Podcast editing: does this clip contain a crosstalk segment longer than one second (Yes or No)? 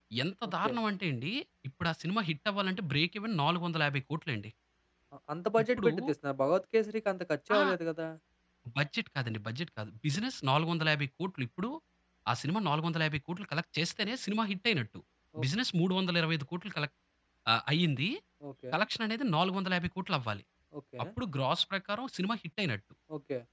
No